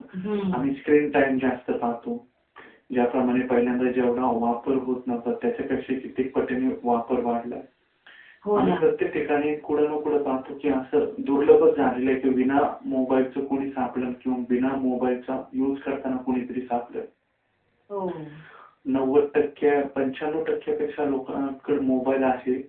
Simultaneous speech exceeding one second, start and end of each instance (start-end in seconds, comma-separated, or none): none